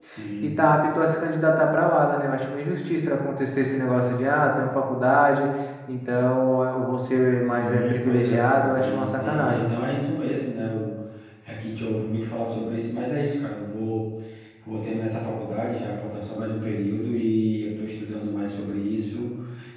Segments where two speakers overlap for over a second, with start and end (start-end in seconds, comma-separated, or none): 7.5-9.7